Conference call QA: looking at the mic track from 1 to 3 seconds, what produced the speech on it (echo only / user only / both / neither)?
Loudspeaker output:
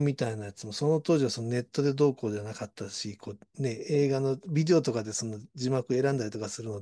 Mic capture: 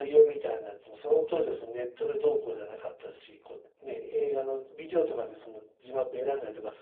echo only